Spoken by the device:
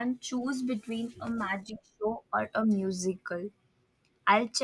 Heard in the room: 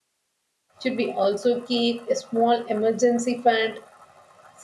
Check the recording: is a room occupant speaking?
Yes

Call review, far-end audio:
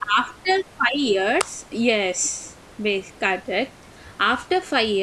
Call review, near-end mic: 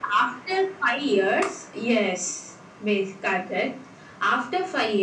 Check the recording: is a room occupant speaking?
No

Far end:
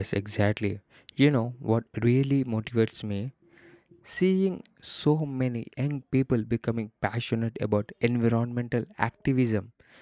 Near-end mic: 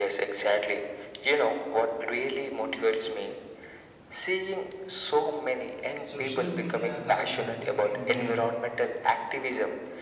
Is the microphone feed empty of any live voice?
No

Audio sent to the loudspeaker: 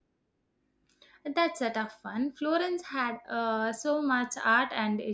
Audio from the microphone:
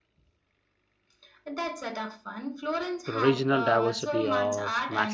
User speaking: Yes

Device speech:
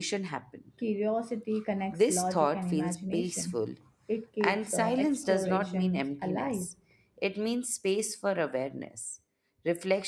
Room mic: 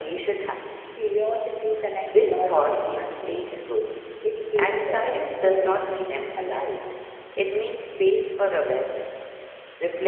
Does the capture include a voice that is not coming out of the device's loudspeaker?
No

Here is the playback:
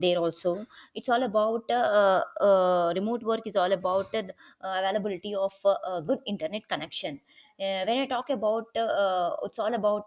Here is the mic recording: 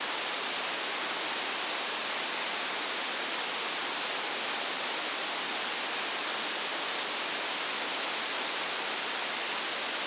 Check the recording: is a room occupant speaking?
No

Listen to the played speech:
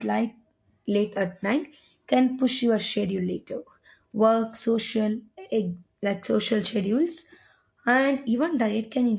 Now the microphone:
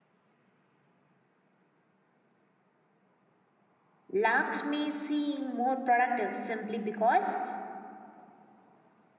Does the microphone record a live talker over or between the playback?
Yes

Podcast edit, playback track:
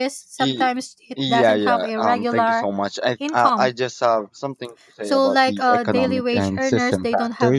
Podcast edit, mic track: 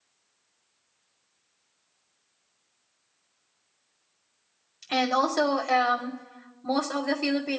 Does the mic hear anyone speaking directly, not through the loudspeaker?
Yes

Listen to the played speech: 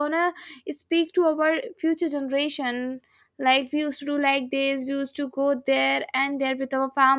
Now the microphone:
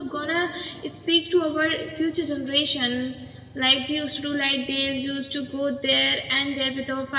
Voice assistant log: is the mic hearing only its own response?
Yes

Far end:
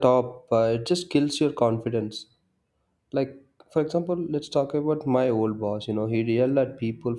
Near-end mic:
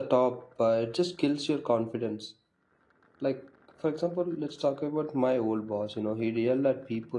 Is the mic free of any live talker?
Yes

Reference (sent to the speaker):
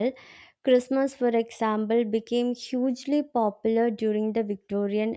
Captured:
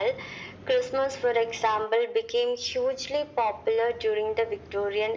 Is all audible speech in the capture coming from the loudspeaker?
Yes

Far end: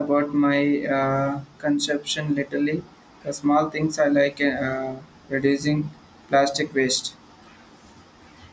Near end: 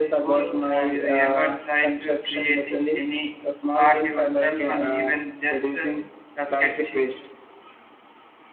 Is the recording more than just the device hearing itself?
Yes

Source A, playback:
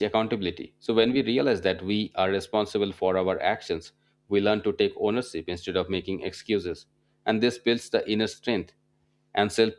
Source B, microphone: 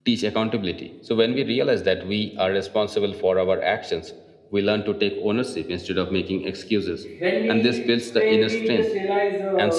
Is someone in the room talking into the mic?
Yes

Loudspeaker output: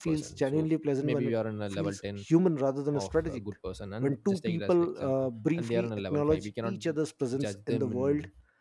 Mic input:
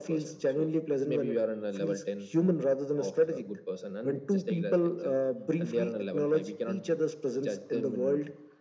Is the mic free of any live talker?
Yes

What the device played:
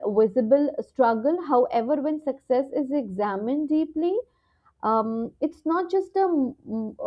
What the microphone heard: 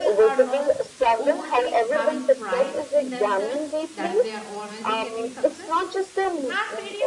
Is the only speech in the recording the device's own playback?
No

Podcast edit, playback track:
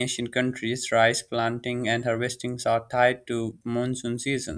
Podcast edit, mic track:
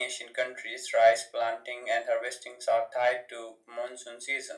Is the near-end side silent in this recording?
Yes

